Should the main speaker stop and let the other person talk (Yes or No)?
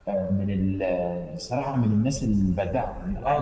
Yes